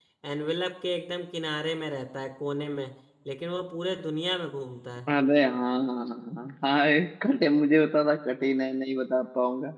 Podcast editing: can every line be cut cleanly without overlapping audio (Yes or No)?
Yes